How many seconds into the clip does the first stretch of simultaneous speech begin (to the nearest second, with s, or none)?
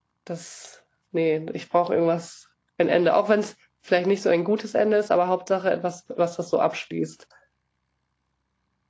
none